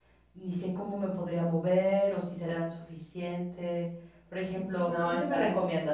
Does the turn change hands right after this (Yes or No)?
No